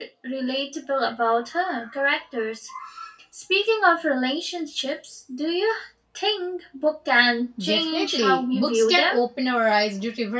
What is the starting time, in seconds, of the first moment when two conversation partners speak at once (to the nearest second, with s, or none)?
8 s